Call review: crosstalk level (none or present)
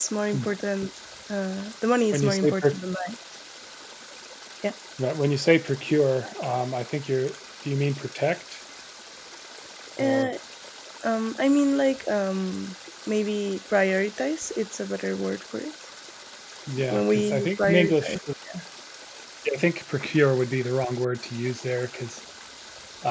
present